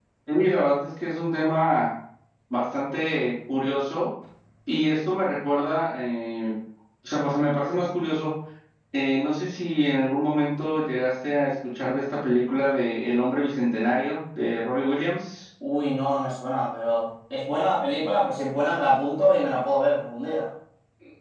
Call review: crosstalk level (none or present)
none